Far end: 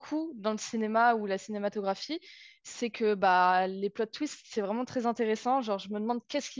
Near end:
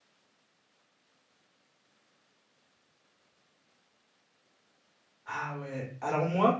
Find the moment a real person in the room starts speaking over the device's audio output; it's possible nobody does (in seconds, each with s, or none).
5.2 s